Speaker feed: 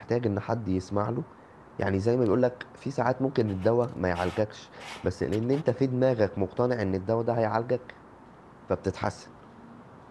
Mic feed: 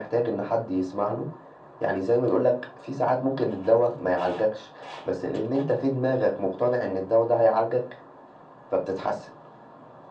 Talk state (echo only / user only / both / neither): echo only